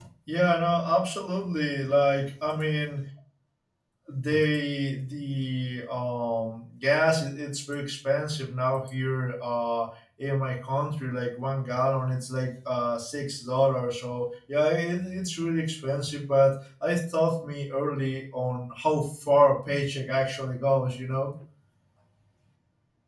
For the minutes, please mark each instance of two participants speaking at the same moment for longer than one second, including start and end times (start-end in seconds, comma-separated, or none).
none